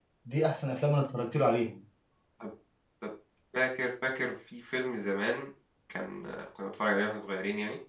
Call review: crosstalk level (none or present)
none